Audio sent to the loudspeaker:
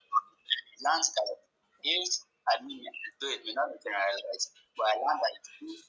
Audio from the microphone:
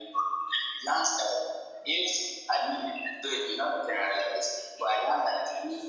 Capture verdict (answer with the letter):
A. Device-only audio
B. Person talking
A